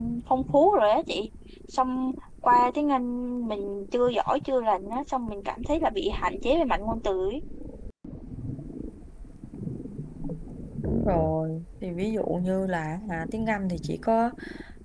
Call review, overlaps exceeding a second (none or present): none